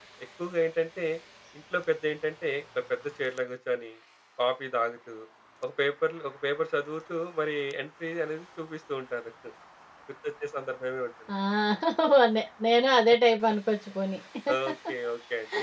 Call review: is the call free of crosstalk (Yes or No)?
Yes